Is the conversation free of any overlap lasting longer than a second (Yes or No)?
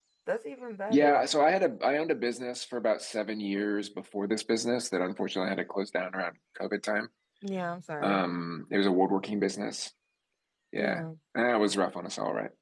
Yes